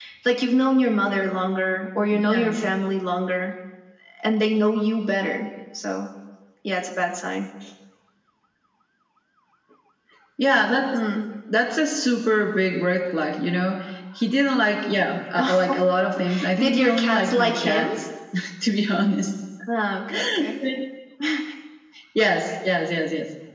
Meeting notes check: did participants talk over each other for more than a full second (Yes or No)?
Yes